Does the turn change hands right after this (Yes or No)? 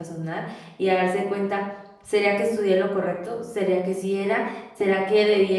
No